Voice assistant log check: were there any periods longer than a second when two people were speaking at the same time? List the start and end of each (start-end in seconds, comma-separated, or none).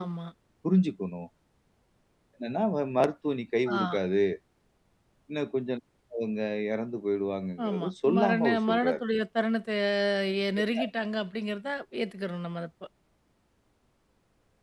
7.7-9.0